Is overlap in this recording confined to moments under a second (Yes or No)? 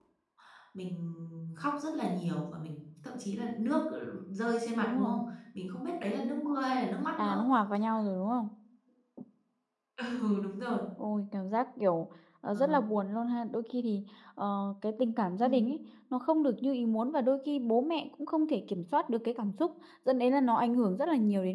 Yes